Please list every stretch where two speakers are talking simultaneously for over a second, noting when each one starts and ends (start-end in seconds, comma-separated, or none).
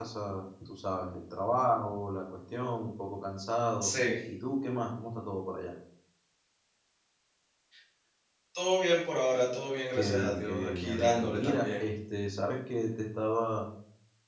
9.9-11.9